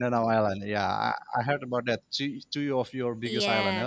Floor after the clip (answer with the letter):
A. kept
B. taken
B